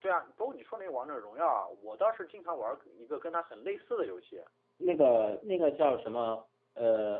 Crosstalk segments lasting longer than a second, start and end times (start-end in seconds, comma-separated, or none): none